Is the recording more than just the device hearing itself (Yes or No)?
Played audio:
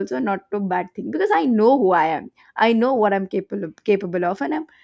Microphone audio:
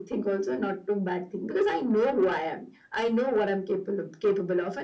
No